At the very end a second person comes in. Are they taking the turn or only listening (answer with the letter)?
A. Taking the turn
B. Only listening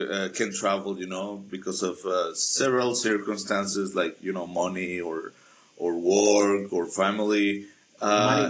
A